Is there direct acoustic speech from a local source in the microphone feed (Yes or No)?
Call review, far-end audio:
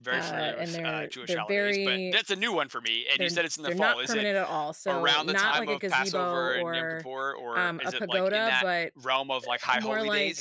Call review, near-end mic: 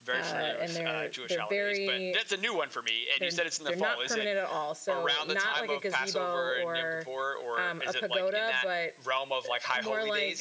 No